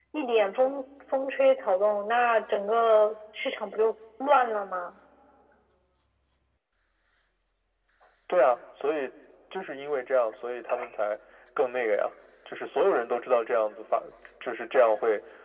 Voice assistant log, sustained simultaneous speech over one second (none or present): none